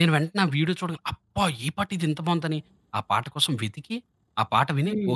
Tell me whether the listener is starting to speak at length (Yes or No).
No